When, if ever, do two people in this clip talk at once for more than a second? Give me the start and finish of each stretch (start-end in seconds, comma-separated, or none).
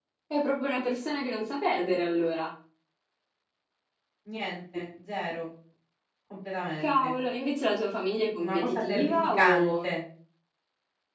8.4-9.9